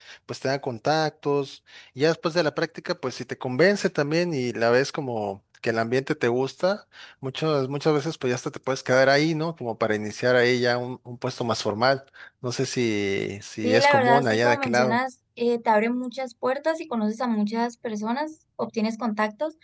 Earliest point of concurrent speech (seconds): 13.6 s

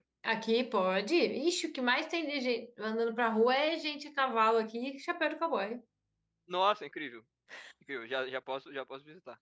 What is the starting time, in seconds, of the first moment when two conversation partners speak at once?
none

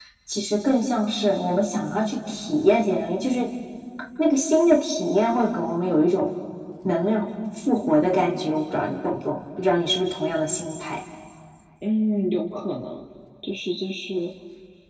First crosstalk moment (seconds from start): none

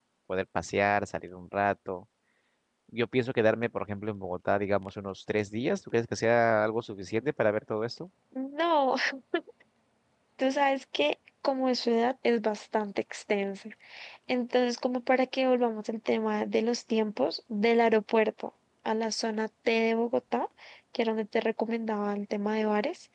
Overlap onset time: none

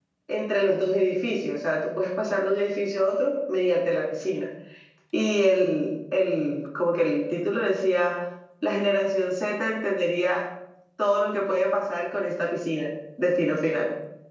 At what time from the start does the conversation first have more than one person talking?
none

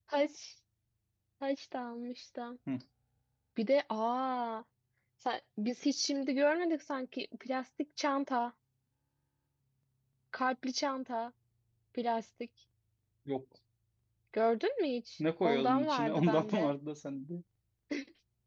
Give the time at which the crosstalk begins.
15.2 s

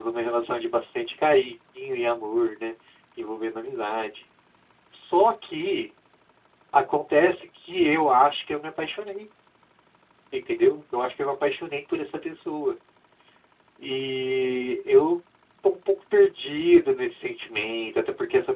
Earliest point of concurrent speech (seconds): none

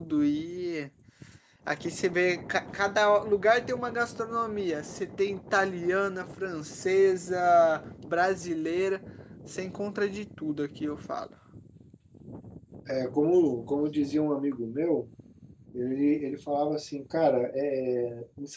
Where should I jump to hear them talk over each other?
none

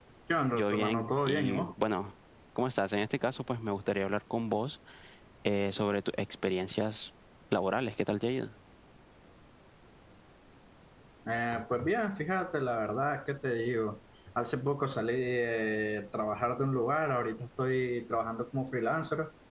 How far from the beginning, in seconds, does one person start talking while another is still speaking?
0.5 s

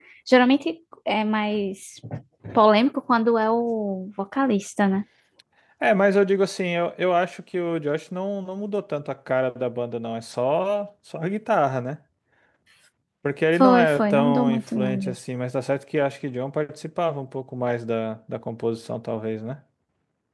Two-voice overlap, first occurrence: 13.6 s

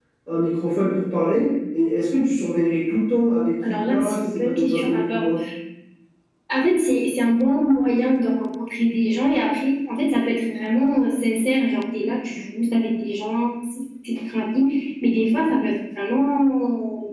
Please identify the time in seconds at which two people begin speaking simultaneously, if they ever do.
3.6 s

